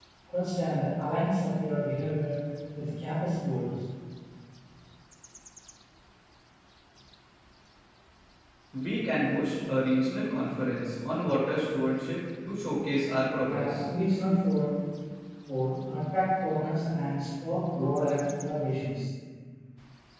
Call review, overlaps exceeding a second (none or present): none